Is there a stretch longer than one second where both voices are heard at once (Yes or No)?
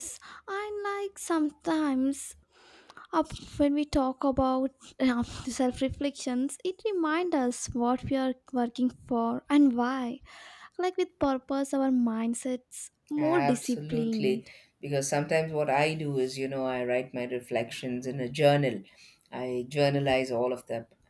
Yes